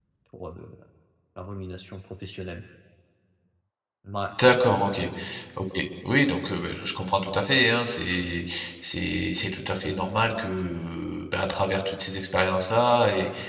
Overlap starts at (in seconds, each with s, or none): none